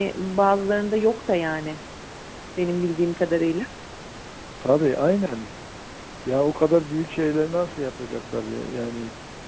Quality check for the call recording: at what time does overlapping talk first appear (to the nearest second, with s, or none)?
none